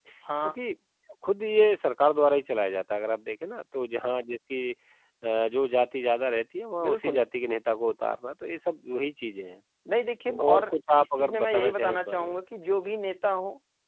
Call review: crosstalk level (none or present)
present